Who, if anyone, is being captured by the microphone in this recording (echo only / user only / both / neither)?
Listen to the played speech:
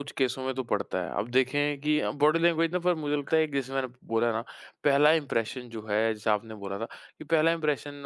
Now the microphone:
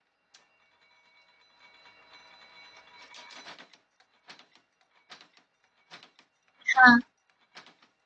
user only